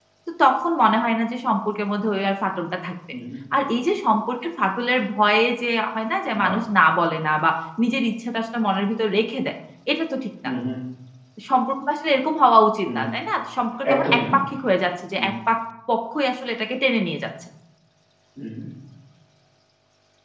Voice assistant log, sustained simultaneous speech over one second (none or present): none